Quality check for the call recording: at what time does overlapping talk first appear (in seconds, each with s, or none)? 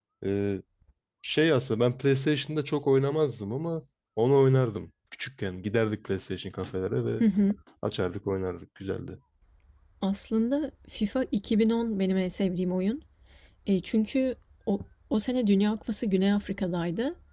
none